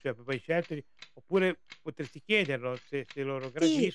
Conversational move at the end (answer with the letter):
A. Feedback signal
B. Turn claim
B